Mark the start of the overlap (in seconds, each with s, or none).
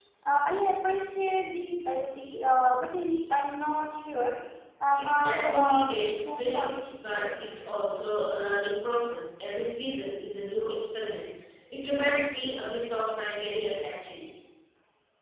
5.0 s